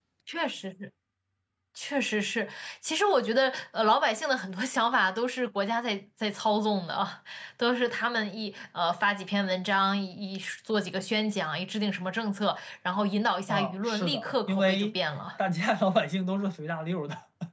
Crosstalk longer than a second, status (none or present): present